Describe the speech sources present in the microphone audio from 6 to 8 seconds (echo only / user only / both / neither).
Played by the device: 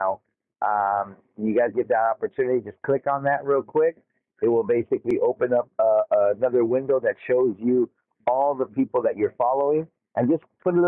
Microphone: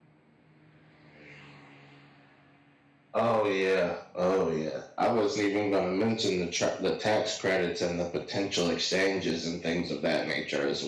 user only